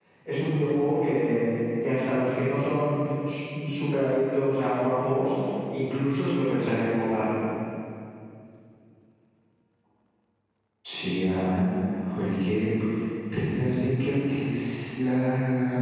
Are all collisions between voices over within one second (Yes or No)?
Yes